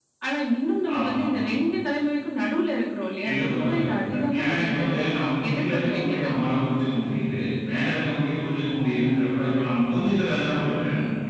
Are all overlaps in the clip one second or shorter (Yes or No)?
No